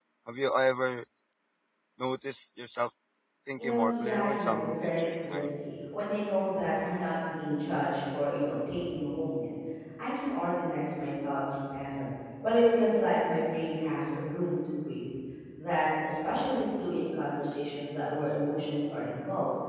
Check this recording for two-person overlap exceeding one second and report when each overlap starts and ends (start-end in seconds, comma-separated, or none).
3.6-5.5